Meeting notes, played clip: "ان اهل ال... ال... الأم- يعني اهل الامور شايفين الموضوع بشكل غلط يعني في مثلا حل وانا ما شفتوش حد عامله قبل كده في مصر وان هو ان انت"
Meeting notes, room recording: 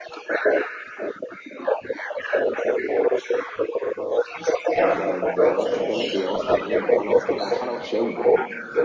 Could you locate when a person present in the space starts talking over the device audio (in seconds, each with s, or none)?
4.8 s